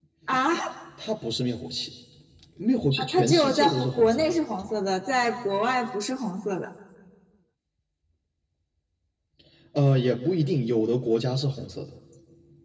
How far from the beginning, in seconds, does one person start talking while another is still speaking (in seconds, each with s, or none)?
3.0 s